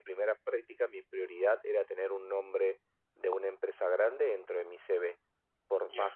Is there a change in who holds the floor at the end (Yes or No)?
No